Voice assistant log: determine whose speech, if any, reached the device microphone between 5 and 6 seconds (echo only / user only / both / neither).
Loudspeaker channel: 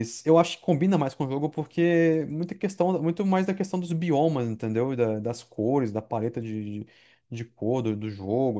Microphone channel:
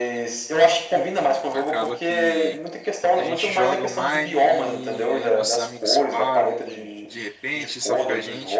both